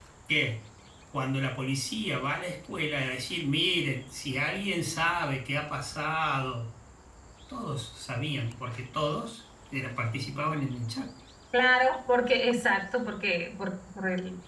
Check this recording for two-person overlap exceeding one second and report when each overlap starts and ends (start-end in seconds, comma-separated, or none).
none